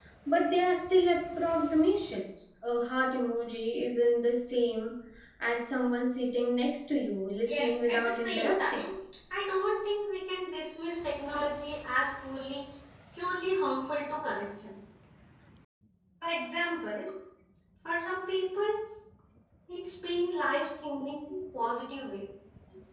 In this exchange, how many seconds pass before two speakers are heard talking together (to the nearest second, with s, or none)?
7 s